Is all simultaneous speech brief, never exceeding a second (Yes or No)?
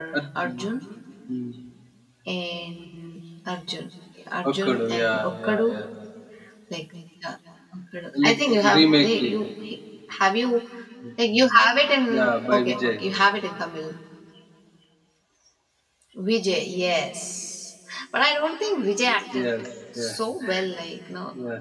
No